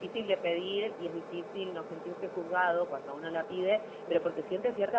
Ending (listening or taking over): listening